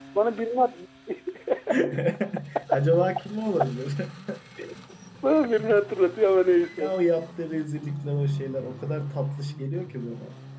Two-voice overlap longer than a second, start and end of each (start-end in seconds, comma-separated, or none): none